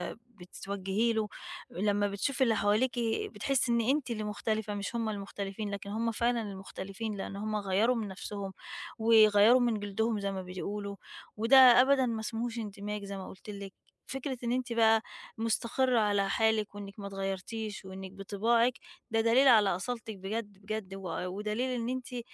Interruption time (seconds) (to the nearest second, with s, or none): none